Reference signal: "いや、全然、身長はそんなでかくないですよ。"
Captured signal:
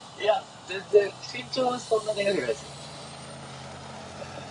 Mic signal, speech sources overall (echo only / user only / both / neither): echo only